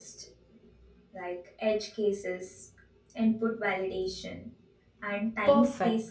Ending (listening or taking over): taking over